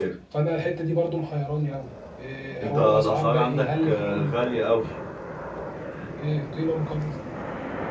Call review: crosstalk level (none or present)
present